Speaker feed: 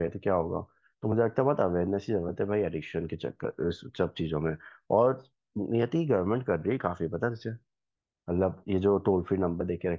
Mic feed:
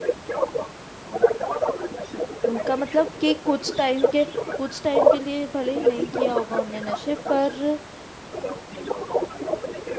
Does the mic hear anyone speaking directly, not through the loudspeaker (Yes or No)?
Yes